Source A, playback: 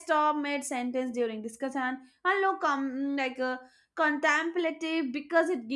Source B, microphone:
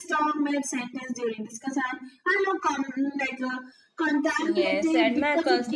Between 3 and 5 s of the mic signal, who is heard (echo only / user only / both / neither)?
both